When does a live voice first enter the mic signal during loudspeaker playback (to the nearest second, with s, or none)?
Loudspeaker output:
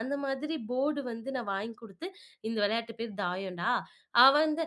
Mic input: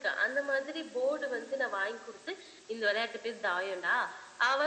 none